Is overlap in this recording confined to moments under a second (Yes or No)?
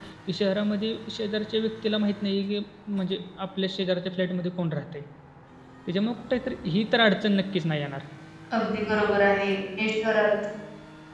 Yes